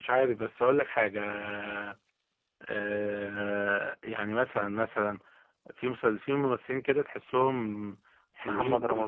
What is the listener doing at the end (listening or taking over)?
listening